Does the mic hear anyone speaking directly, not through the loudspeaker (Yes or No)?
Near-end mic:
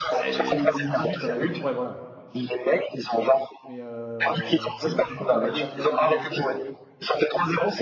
Yes